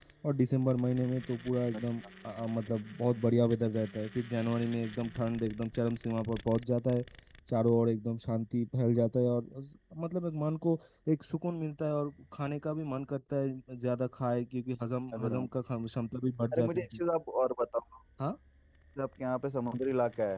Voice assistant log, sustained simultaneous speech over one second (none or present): none